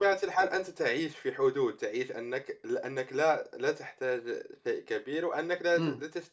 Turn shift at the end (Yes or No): No